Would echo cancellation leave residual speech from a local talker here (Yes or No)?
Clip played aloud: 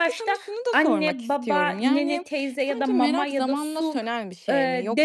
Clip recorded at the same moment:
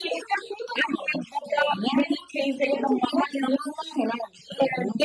No